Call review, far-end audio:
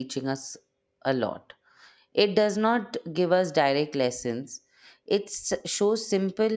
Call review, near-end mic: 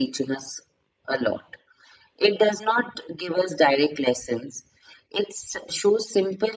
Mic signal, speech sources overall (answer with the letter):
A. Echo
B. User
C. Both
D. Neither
A